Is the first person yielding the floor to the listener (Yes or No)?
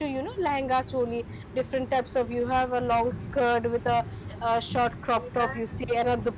No